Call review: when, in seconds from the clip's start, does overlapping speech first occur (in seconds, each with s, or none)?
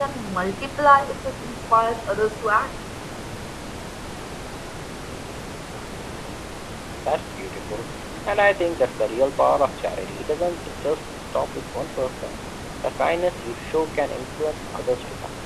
none